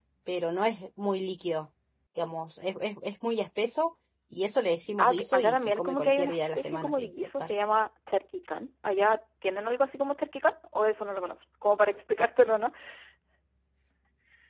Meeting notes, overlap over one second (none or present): present